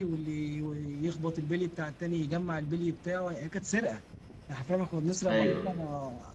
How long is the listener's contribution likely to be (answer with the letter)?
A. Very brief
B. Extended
A